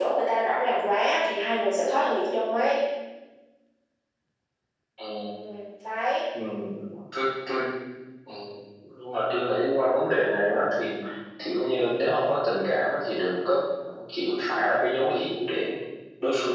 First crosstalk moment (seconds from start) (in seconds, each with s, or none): none